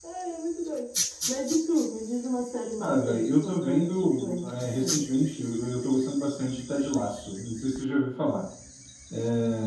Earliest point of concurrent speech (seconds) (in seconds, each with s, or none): 2.8 s